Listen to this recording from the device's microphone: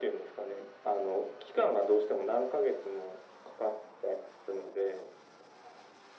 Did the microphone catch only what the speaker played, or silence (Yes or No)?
Yes